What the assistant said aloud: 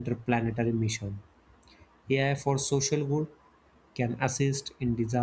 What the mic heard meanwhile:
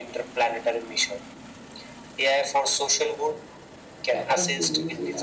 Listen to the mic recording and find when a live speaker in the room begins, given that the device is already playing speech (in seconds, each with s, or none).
4.0 s